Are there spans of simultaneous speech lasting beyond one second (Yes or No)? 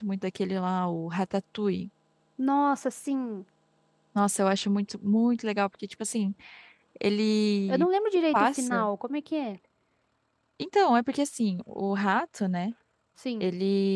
No